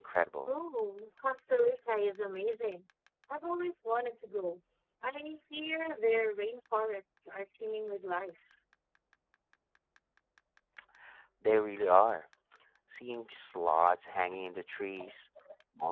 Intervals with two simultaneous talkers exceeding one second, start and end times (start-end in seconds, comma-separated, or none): none